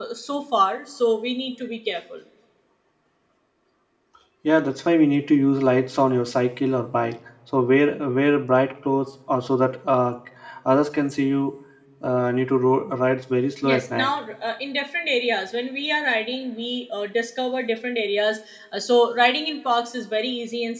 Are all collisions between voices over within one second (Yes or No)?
Yes